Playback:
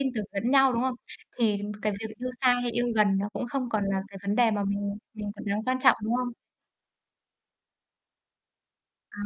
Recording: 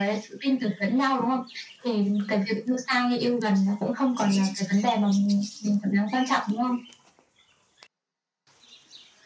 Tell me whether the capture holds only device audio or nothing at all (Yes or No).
Yes